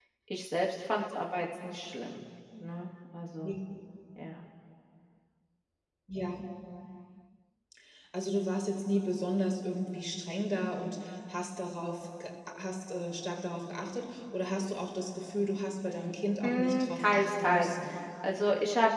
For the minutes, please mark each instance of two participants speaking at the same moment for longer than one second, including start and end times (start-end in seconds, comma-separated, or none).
16.4-17.7